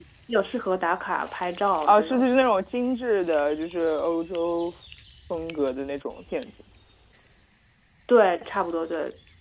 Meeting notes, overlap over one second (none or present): none